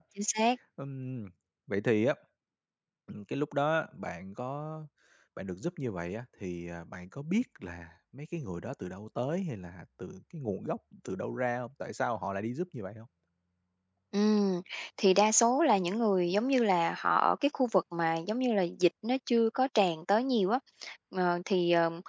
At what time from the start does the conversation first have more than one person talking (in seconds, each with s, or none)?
none